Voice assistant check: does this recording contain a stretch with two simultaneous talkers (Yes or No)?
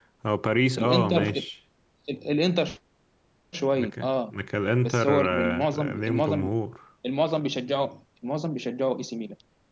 Yes